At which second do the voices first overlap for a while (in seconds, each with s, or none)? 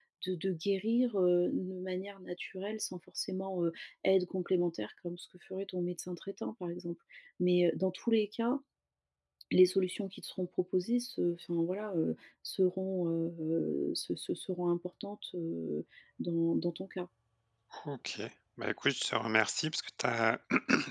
none